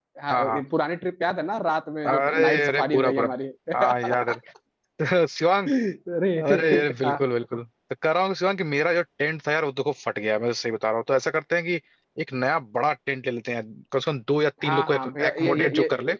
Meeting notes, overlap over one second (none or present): present